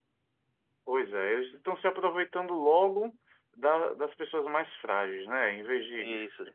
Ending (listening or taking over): listening